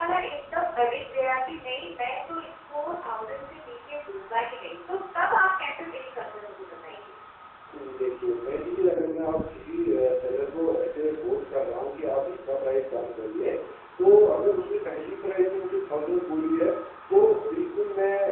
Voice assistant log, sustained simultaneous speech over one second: none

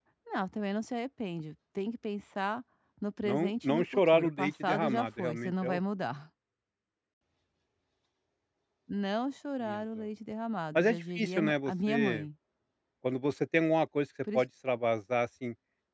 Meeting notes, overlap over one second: present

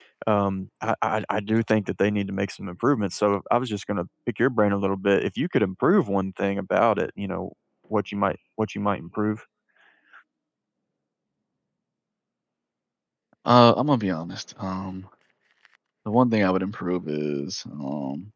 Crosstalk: none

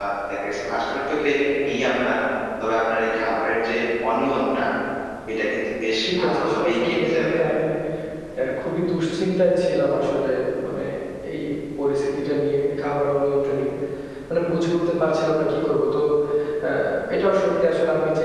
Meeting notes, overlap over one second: present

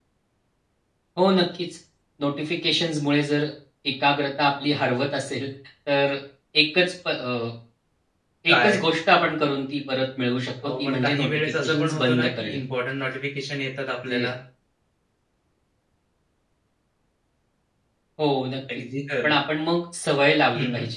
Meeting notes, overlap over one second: present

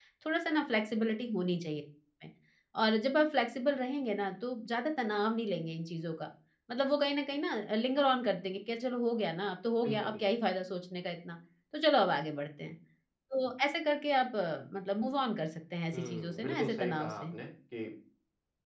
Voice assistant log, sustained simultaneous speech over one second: present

